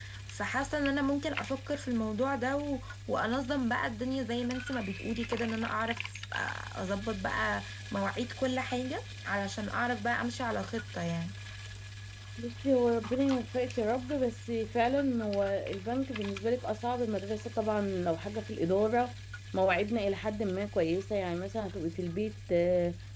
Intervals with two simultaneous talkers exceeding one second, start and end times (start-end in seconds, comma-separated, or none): none